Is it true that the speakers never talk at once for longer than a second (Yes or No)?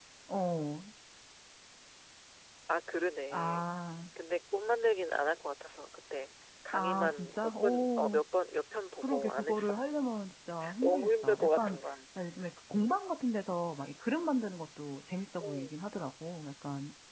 No